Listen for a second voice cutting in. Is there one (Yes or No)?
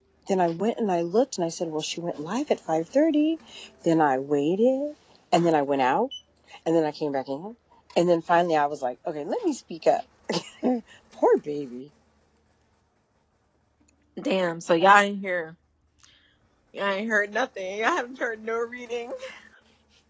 No